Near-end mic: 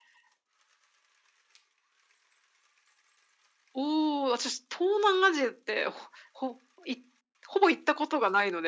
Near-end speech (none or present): none